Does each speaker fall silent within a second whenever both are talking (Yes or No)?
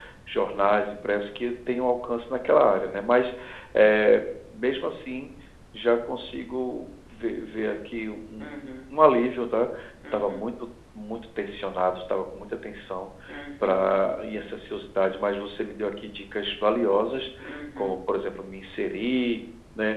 Yes